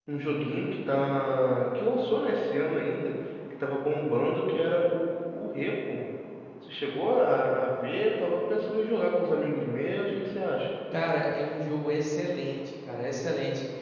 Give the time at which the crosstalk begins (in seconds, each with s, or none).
none